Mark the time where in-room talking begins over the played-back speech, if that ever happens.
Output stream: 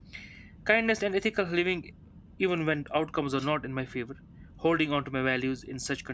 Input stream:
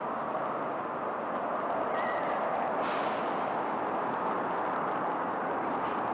none

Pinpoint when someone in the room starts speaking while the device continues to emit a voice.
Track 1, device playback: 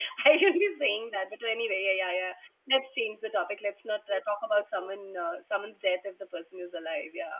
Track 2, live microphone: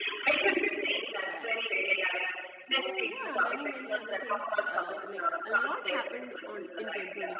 1.2 s

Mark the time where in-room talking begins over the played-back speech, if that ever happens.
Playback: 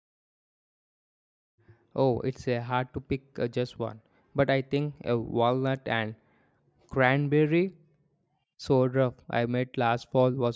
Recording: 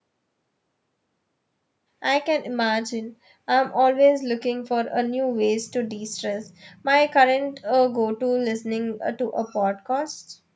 2.0 s

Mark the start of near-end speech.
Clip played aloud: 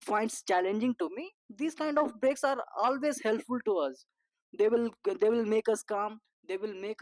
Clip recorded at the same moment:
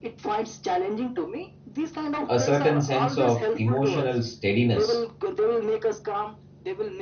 2.2 s

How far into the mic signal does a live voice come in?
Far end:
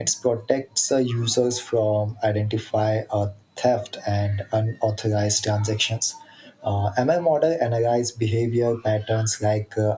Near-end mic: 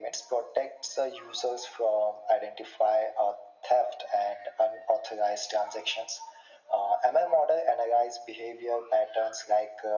none

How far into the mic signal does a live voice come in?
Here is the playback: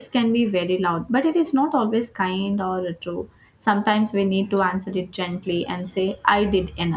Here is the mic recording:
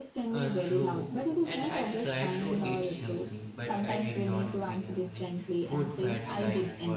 0.3 s

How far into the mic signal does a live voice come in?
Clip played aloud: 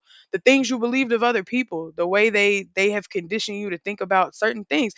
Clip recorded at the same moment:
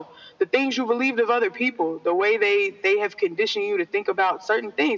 none

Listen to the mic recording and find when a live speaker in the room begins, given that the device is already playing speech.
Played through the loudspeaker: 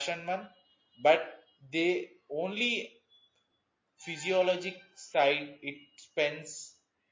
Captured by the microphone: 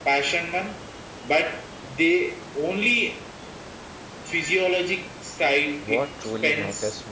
5.8 s

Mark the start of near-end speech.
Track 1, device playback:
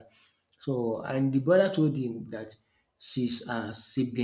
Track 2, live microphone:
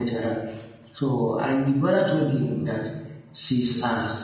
none

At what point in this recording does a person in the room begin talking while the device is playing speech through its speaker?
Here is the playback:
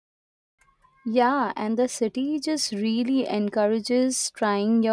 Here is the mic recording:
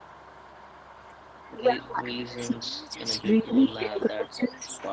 1.6 s

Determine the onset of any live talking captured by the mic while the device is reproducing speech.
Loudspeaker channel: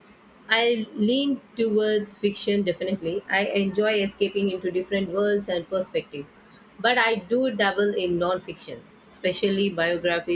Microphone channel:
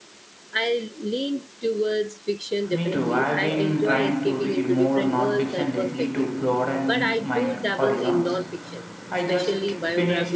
2.7 s

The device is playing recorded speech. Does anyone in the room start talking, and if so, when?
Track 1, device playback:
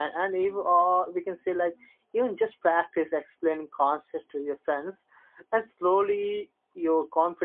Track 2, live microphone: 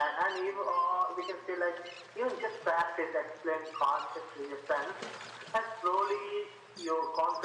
none

